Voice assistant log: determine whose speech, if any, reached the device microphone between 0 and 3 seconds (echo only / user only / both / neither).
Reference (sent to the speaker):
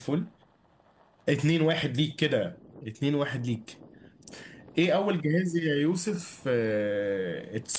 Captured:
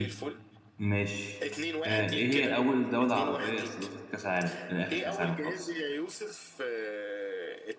both